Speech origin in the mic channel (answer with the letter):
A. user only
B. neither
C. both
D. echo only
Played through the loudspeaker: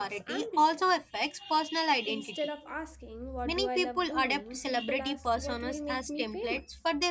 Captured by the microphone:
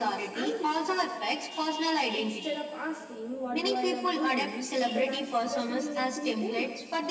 D